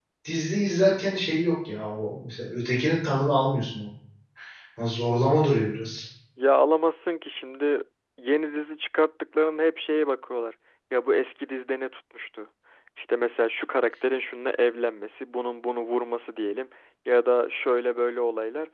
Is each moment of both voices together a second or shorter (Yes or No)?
Yes